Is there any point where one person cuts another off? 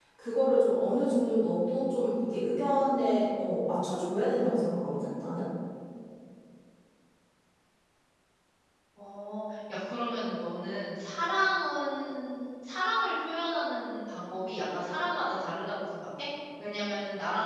No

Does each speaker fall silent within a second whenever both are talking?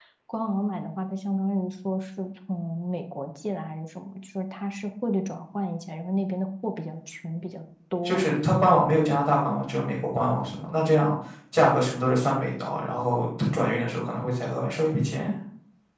Yes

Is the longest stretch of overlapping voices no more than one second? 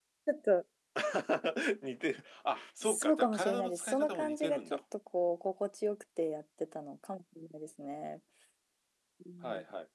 No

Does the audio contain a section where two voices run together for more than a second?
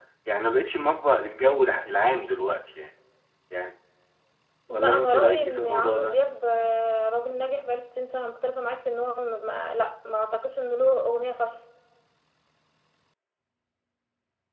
Yes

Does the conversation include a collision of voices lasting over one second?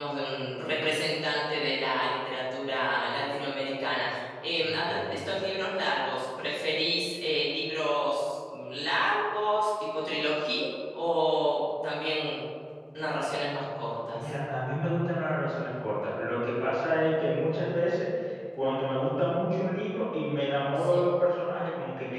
No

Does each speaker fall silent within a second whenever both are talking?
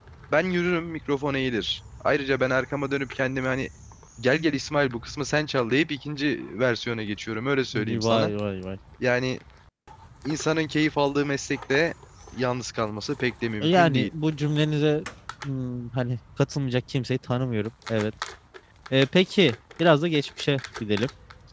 Yes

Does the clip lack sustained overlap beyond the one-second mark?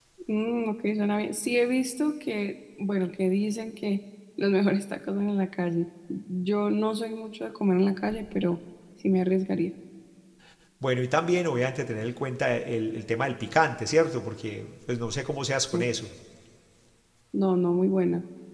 Yes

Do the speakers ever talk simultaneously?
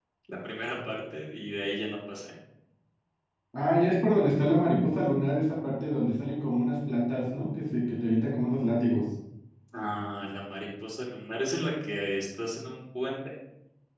No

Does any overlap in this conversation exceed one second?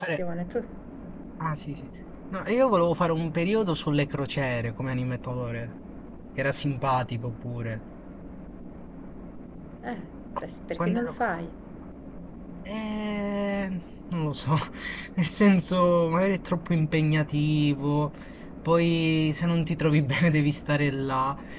No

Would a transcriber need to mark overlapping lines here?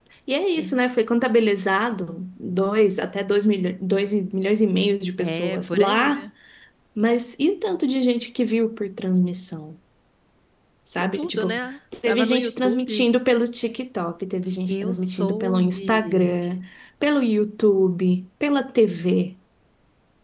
Yes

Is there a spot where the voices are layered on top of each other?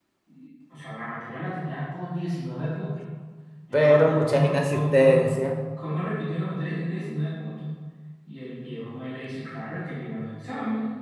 Yes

